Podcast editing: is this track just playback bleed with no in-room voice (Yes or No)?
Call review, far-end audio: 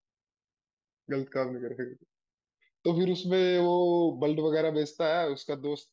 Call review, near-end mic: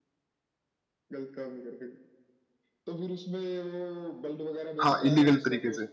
No